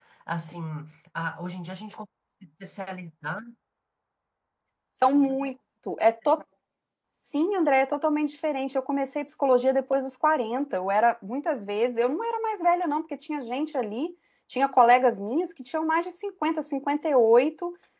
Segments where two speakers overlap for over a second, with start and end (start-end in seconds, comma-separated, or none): none